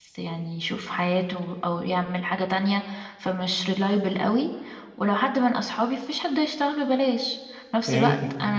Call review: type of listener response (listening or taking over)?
listening